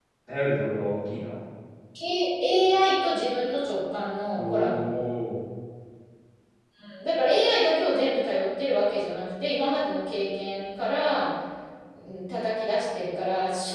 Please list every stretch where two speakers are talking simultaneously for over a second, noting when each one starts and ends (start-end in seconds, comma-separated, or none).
none